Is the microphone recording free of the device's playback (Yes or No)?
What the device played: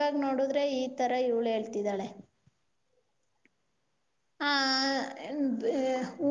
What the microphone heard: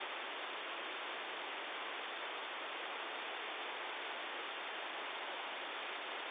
Yes